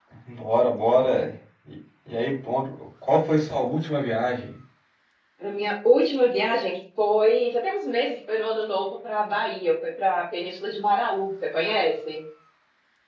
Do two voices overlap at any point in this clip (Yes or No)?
No